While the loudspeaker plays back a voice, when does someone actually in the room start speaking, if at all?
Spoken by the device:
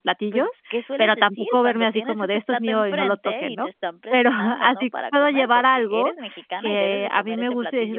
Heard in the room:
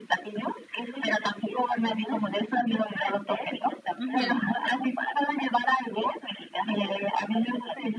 4.0 s

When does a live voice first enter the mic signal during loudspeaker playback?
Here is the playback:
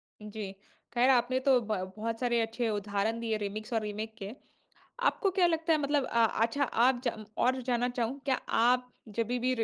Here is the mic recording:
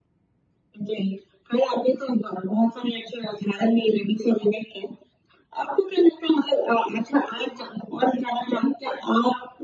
none

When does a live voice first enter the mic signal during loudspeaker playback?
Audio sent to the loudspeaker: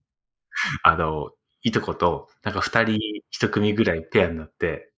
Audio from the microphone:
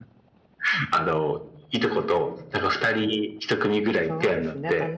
4.0 s

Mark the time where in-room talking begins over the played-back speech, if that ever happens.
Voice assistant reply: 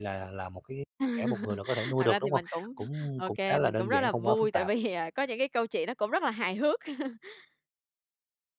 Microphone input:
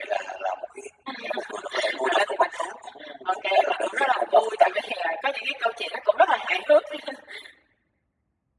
none

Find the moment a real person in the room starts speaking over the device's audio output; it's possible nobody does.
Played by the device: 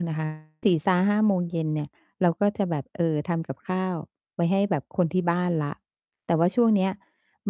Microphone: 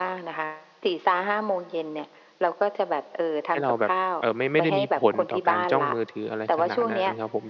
3.5 s

